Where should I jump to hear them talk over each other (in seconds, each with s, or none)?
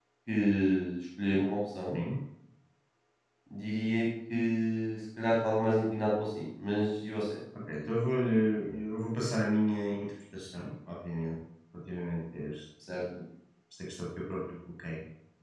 none